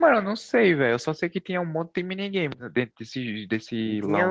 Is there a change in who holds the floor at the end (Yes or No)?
Yes